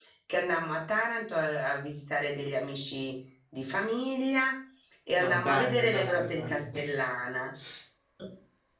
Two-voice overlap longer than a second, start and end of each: 5.2-6.7

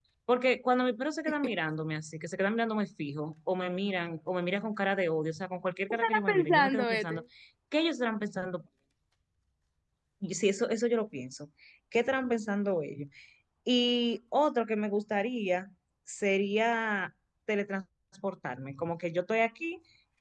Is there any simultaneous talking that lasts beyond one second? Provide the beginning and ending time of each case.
5.9-7.2

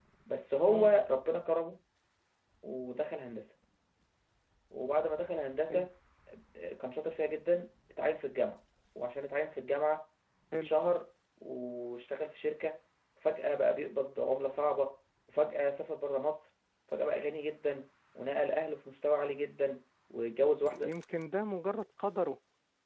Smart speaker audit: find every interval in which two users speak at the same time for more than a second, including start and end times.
none

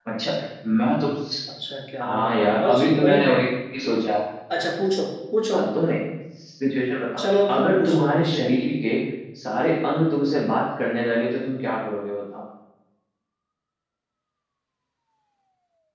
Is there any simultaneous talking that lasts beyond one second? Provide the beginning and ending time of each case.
2.0-3.4, 7.2-8.4

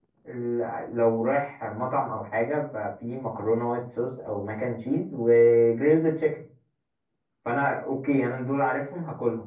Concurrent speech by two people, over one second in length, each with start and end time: none

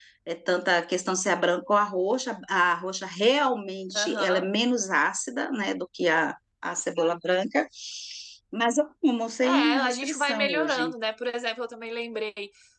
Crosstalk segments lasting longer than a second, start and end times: 9.4-10.9

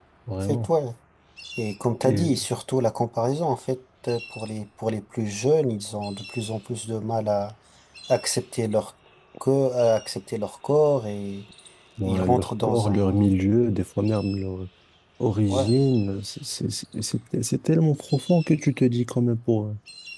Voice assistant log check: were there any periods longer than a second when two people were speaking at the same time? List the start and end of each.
12.1-13.3

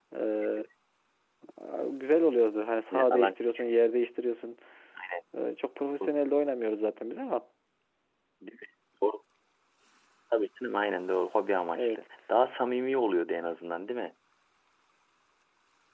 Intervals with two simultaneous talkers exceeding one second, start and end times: none

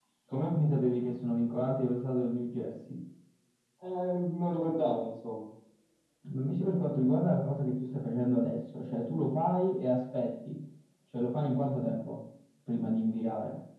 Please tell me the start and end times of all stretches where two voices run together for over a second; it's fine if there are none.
none

